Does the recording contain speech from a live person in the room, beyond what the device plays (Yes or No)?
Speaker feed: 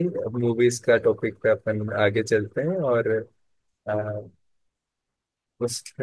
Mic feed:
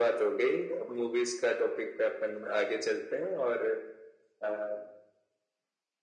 No